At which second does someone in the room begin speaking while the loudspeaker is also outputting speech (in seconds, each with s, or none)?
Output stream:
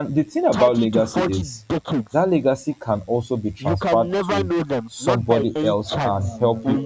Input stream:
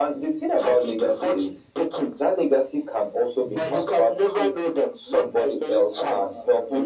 3.4 s